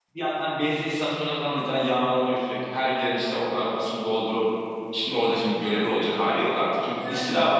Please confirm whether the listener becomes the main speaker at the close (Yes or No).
No